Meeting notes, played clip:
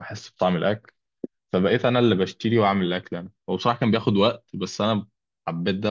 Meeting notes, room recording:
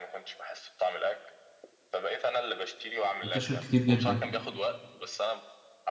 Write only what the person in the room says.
منتشر كتير جدا

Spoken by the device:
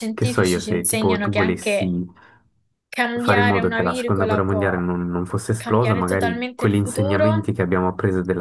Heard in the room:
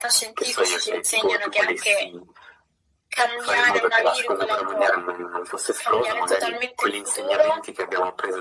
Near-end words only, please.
none

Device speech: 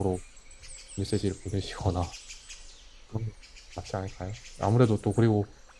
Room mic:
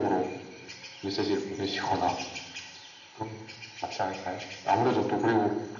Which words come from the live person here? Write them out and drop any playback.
none

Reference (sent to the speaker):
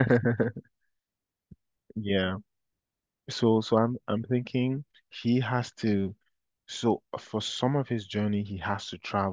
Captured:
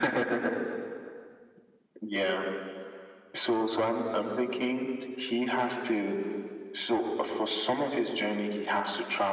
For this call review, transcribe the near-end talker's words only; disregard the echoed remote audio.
none

